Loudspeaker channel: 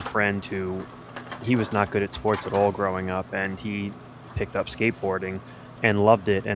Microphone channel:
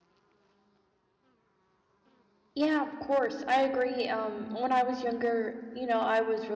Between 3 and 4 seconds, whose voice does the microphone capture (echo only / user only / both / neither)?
user only